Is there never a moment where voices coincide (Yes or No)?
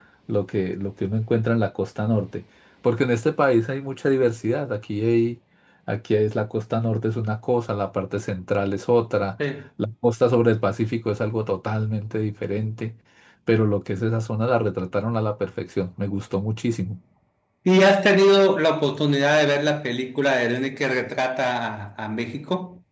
Yes